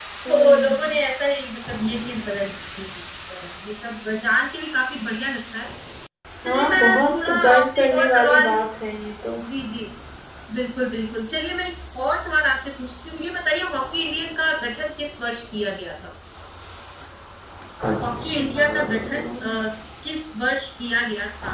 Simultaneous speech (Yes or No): Yes